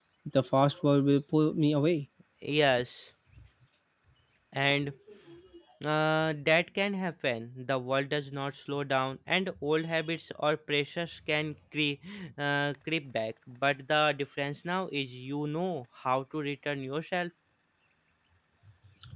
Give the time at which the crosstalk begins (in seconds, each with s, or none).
none